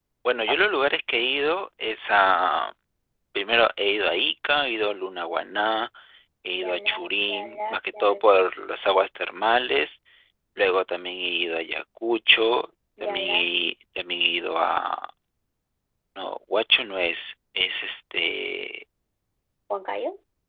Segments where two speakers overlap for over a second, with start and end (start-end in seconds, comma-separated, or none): 6.6-8.3